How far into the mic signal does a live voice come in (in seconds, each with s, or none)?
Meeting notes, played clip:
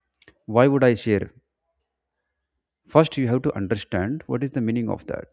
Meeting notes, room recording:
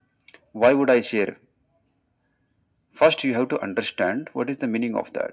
none